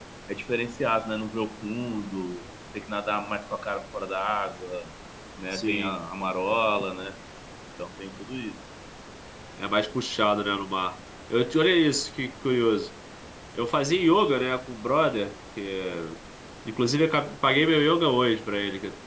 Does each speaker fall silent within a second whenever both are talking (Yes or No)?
Yes